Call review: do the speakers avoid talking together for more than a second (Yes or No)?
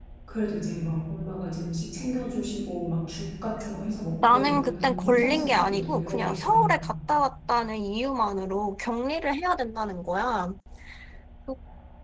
No